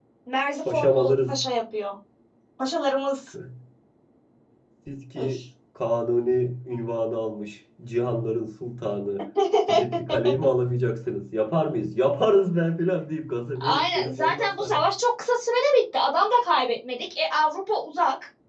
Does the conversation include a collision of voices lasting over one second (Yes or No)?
Yes